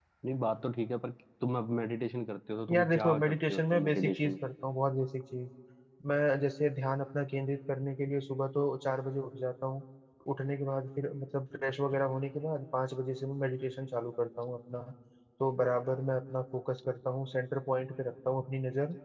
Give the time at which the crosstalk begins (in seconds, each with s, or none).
2.7 s